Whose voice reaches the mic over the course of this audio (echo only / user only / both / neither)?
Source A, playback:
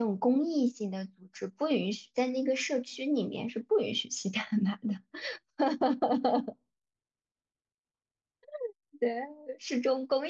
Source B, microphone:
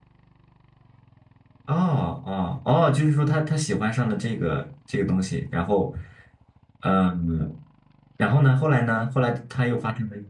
user only